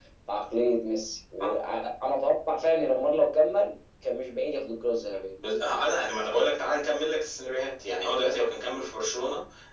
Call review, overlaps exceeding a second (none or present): none